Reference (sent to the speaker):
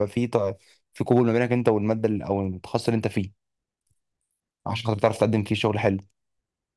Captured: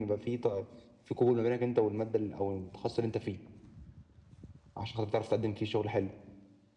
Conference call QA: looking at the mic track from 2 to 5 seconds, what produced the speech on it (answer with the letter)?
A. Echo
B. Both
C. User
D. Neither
A